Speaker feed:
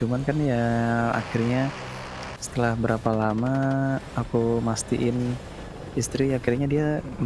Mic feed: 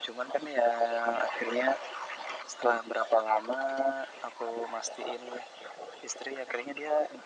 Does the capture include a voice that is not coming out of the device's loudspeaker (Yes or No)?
No